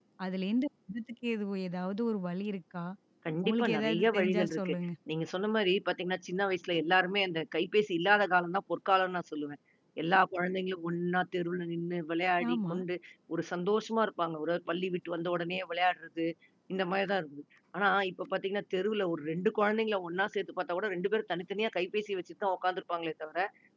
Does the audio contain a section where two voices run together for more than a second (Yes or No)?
Yes